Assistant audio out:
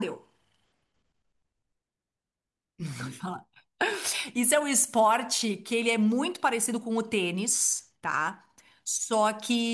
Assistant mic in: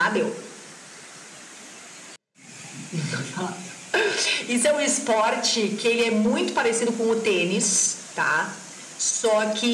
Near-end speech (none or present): none